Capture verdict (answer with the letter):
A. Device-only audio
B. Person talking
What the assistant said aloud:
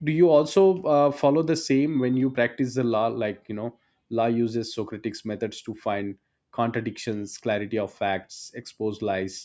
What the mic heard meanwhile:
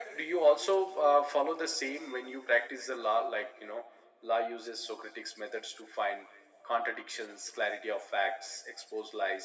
A